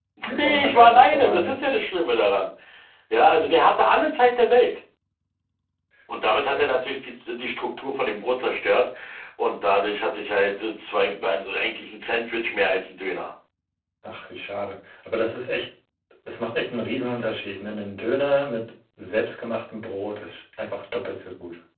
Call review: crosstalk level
present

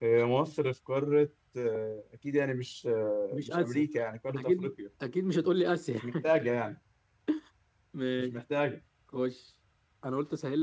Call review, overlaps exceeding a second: none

